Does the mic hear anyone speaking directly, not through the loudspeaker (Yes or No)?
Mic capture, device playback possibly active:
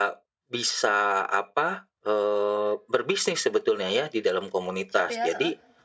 Yes